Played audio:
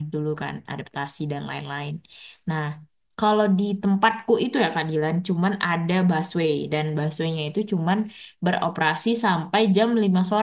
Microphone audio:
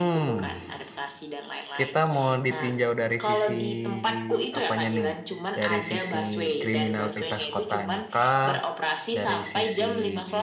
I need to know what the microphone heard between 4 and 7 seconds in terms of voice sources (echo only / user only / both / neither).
both